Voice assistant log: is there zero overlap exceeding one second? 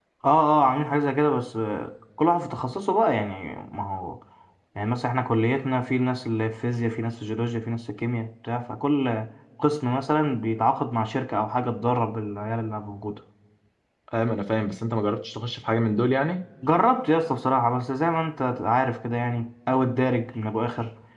Yes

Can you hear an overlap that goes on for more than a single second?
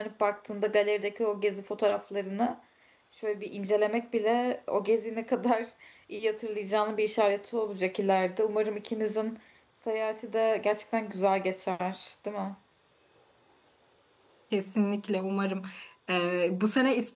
No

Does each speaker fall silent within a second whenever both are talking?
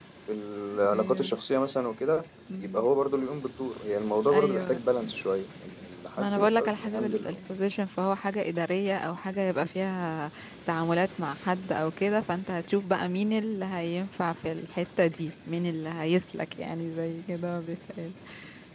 No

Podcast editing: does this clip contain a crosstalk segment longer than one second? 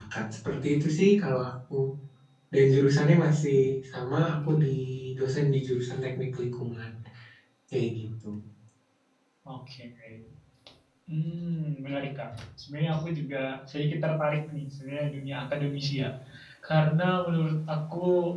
No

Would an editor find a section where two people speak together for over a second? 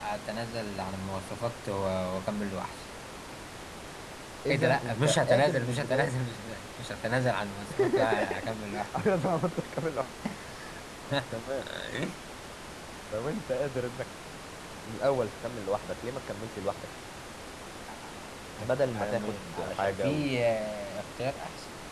Yes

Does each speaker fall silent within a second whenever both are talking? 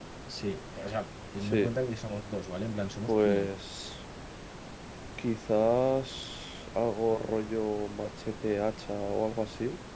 Yes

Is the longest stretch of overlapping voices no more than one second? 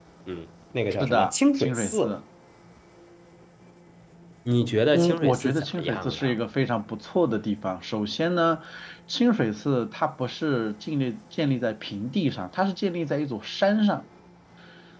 No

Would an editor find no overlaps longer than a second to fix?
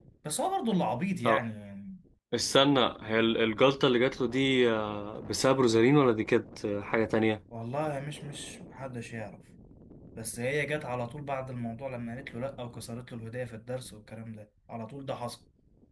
Yes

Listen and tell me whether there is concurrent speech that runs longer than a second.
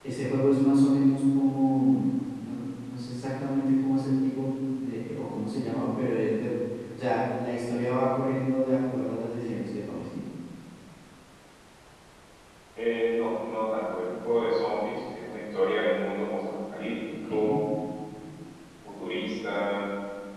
No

